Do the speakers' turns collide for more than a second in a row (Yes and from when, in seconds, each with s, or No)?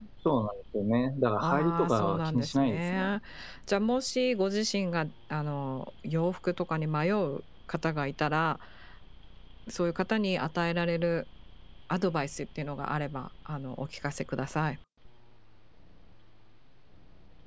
Yes, from 1.4 s